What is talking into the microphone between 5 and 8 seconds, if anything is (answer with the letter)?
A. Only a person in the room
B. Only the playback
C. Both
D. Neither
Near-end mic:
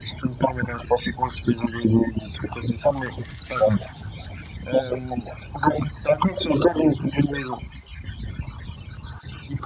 B